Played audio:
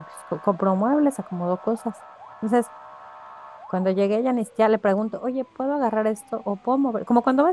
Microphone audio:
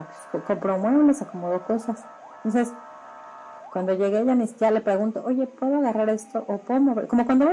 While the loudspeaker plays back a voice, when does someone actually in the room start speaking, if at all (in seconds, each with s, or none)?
none